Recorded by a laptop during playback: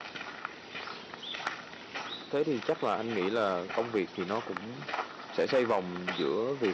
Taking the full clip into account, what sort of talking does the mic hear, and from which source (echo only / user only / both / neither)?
user only